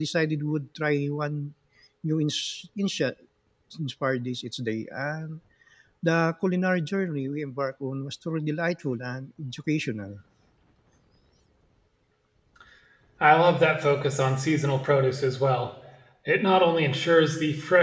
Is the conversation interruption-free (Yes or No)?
Yes